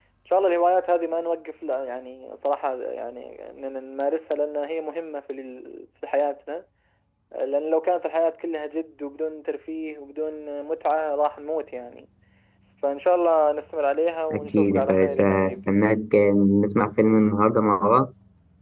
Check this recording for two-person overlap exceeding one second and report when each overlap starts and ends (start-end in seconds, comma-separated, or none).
14.3-15.8